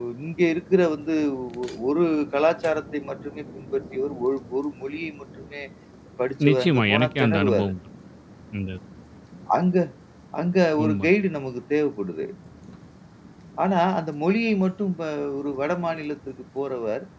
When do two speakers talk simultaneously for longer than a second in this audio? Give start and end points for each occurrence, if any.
6.5-7.7

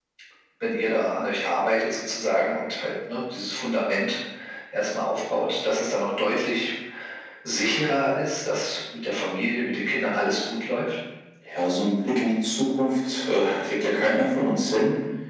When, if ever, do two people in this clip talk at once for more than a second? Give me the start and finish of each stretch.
none

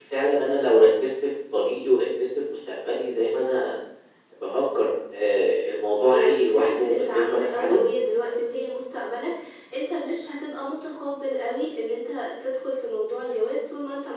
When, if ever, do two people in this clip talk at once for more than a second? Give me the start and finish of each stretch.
6.1-7.8

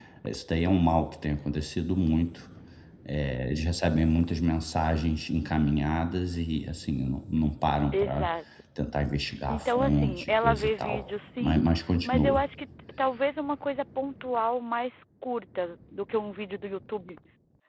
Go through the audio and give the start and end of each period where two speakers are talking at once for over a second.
9.5-11.0

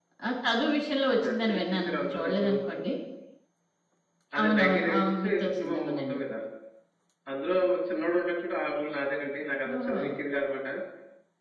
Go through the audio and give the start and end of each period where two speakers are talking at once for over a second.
1.2-2.6, 4.4-6.2

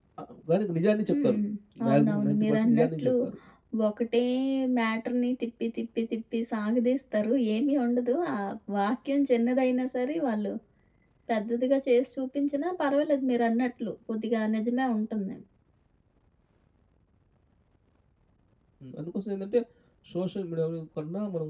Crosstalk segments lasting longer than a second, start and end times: 1.9-3.1

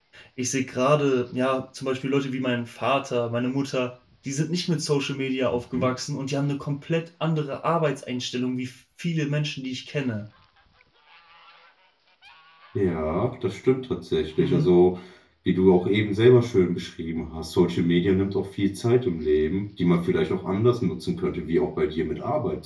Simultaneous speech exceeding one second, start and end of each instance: none

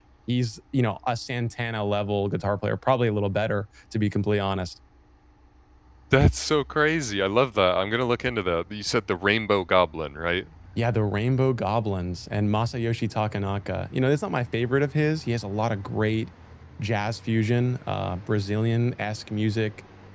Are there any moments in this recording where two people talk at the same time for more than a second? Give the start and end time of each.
none

